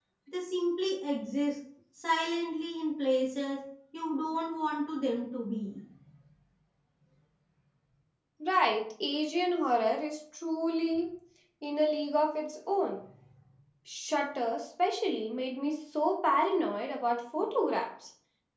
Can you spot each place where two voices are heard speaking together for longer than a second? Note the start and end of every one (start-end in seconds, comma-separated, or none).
none